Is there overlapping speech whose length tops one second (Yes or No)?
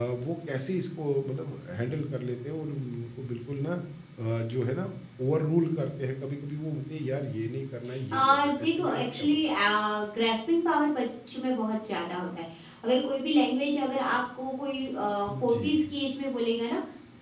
Yes